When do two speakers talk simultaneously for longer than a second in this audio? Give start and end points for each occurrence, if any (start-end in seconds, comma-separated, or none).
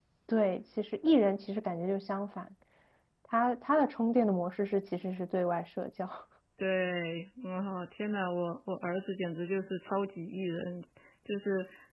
none